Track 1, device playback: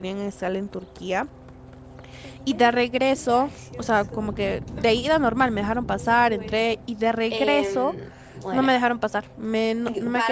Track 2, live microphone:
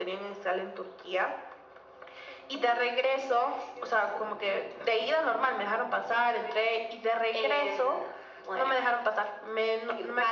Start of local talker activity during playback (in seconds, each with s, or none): none